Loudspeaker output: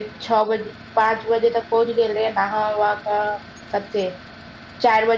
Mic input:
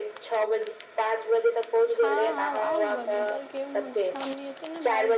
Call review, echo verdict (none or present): present